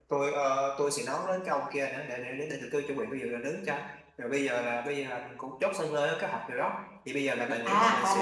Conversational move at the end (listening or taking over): taking over